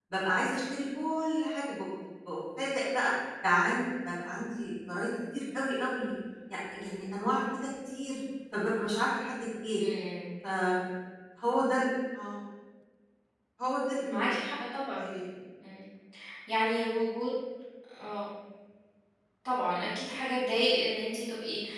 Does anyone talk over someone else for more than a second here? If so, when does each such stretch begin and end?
none

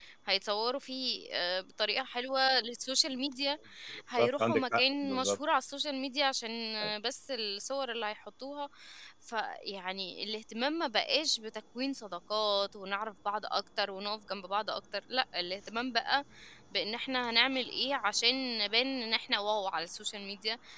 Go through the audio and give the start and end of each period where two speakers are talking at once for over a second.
4.2-5.4

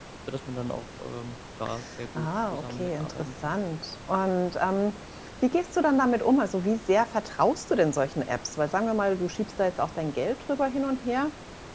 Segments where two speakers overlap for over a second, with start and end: 2.1-3.5

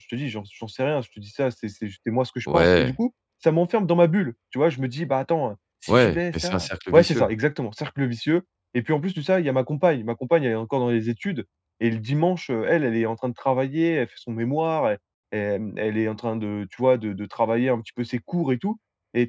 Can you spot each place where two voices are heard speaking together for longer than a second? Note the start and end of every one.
5.9-7.3

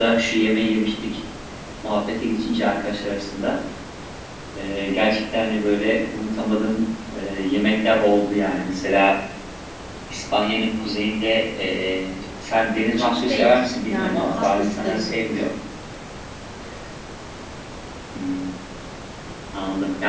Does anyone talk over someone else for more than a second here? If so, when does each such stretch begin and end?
13.0-15.2

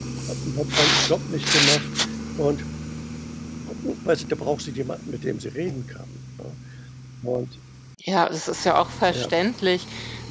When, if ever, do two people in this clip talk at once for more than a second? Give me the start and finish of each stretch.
none

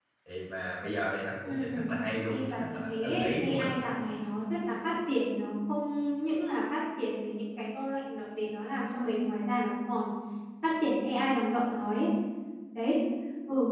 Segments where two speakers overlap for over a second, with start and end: 2.3-3.9

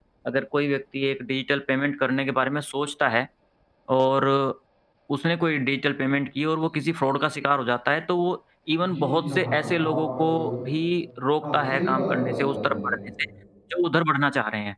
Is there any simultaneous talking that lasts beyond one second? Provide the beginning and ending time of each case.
8.9-10.6, 11.5-12.9

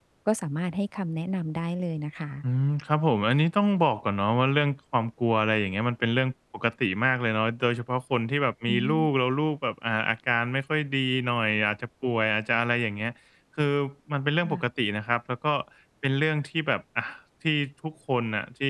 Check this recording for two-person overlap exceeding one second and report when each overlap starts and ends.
none

